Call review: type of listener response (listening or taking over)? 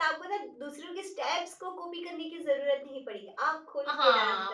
taking over